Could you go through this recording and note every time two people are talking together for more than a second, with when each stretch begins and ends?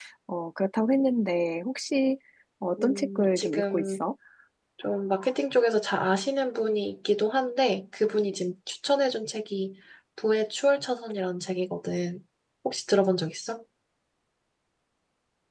2.8-4.0

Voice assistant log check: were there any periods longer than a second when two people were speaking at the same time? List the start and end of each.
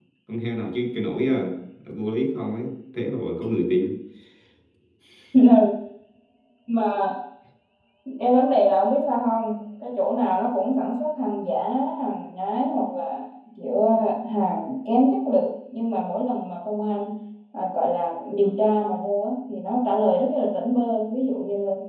none

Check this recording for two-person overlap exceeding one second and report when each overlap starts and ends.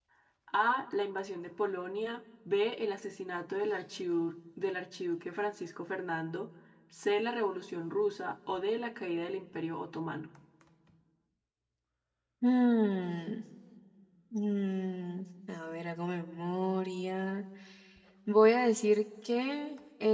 none

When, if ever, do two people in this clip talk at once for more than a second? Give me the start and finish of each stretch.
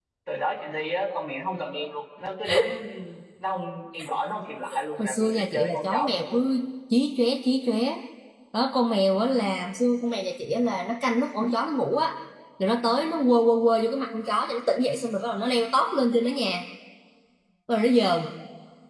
5.0-6.4

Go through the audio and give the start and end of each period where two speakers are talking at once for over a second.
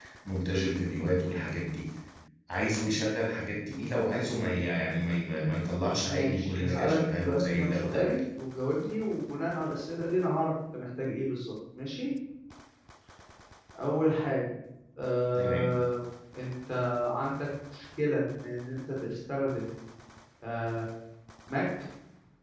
6.0-8.2

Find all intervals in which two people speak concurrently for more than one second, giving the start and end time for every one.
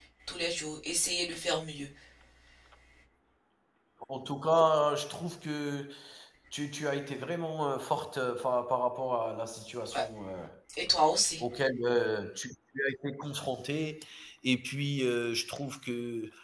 none

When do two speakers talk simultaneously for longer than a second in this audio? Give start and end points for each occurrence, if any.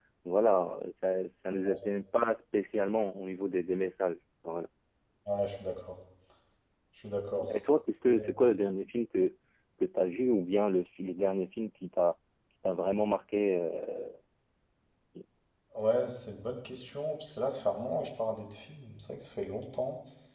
none

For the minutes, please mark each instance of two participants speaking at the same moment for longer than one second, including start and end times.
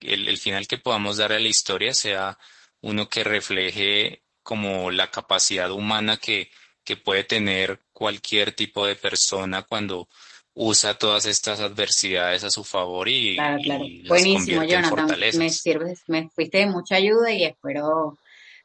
13.4-15.6

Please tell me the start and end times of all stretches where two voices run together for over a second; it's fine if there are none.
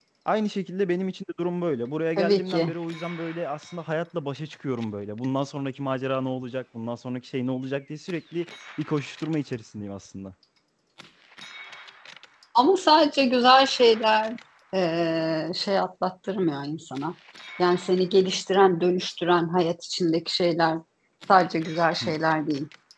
none

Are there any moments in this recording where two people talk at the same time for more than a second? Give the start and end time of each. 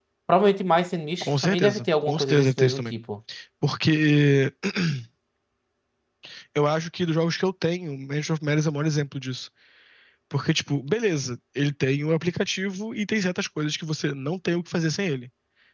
1.2-3.0

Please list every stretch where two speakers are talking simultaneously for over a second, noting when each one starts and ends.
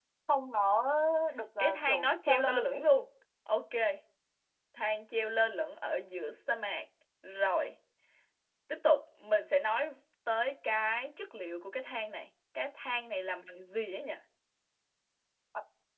1.6-2.8

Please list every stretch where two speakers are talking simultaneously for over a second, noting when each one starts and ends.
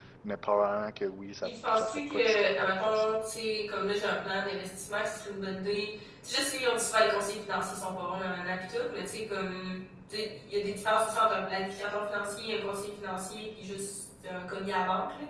1.4-3.2

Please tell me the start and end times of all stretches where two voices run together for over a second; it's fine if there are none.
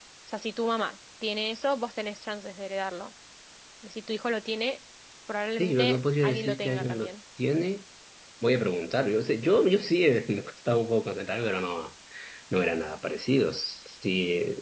5.6-7.1

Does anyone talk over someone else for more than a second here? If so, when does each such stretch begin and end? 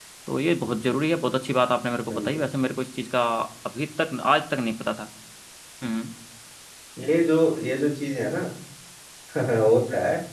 none

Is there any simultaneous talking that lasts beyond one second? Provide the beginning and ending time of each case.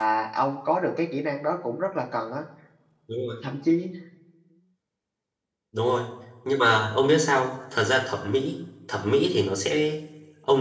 none

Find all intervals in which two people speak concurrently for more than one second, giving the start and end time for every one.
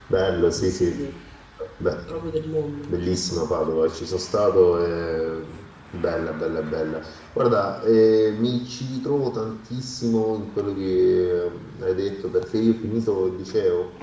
none

